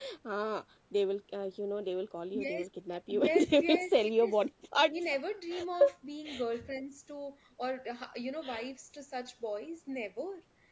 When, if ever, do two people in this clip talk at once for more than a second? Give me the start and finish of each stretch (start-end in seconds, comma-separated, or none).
3.1-4.4